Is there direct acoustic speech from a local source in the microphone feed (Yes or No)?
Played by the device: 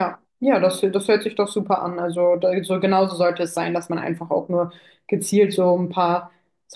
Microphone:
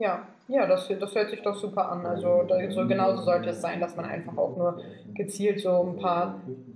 Yes